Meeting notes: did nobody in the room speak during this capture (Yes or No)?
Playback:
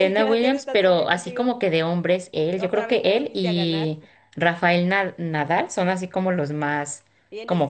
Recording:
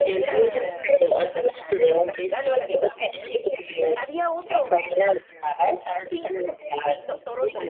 No